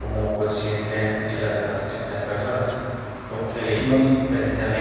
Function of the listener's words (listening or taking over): listening